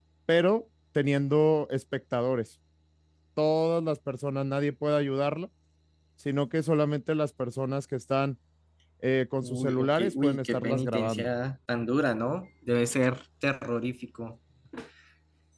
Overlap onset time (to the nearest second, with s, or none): 9 s